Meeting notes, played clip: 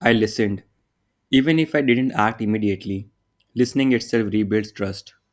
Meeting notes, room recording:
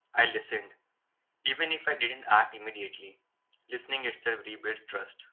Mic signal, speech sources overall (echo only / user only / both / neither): echo only